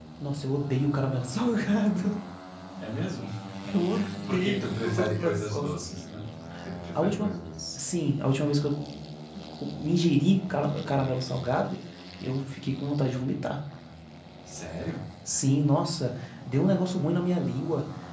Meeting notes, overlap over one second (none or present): present